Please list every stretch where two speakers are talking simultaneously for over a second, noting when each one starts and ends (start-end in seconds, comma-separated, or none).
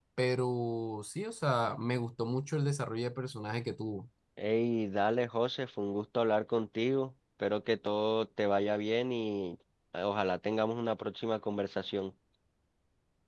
none